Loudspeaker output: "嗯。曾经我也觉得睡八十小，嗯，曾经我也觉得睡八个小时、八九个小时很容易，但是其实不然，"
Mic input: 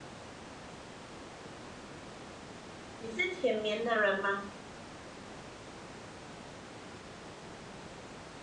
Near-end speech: present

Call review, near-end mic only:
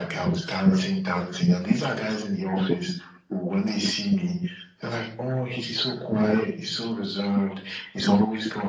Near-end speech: none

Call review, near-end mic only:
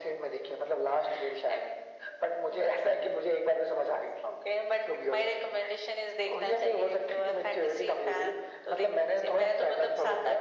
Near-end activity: none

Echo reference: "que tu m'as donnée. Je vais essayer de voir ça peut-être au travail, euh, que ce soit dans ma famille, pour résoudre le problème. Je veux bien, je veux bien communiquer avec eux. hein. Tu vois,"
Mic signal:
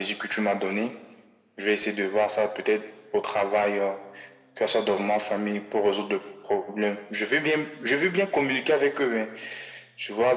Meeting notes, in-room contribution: none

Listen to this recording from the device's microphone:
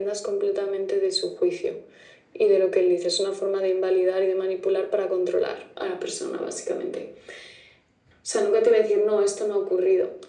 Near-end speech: none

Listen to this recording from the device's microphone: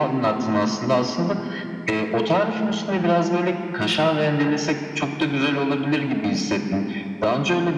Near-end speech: none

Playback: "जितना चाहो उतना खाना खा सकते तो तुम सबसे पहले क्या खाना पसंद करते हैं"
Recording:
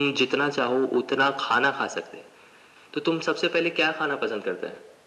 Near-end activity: none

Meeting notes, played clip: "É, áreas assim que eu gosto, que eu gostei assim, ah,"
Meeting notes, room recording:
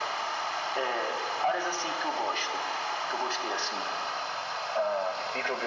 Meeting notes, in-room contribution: none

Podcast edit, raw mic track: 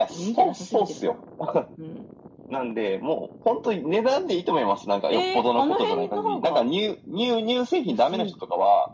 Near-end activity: none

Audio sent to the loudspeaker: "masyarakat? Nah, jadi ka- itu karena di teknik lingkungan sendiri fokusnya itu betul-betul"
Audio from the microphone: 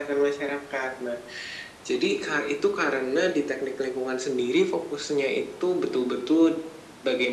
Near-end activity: none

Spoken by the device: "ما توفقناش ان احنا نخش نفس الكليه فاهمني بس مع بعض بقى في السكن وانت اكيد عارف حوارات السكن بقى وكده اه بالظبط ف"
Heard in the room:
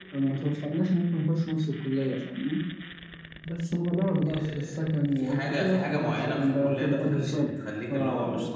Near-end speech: present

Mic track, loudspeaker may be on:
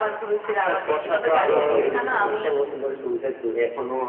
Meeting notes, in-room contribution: present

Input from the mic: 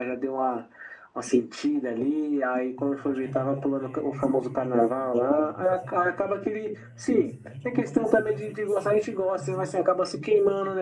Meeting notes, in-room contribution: present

